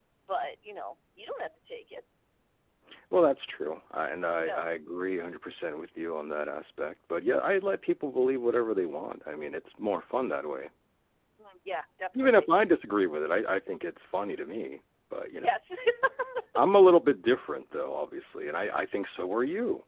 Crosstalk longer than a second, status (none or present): none